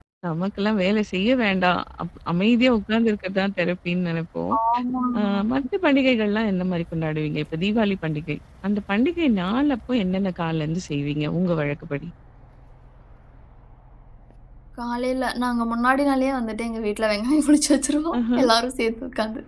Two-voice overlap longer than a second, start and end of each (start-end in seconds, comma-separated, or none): none